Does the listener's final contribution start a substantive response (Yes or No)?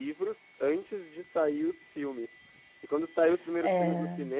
No